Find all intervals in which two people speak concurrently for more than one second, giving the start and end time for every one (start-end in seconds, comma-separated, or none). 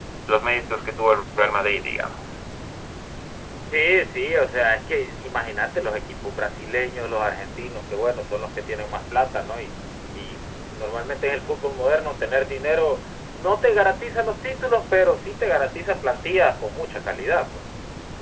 none